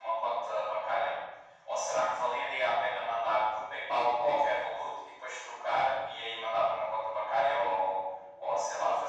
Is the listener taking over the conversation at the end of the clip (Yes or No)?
Yes